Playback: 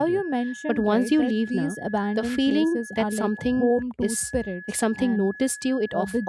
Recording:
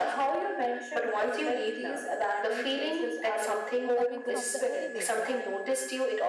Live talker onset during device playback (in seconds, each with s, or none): 3.9 s